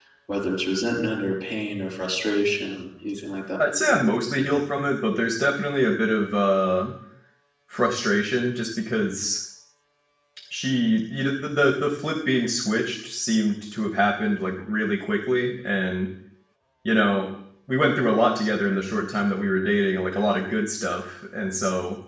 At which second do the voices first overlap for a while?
none

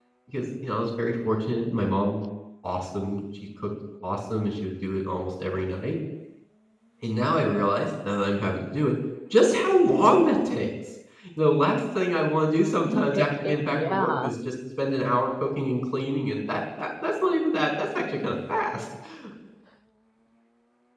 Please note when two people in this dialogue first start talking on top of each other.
13 s

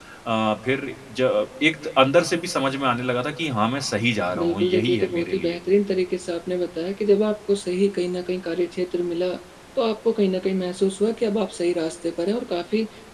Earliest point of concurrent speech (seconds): 4 s

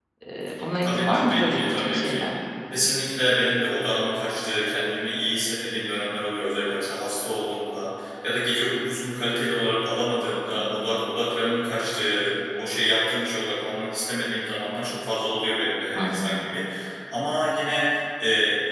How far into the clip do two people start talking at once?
1 s

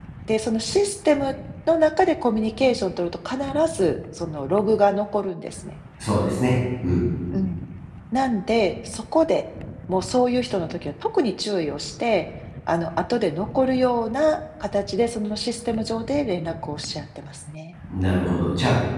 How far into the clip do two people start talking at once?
none

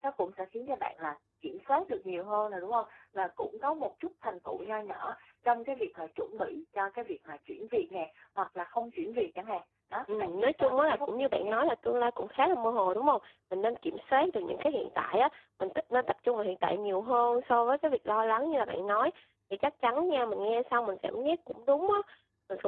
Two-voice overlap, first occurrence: 10 s

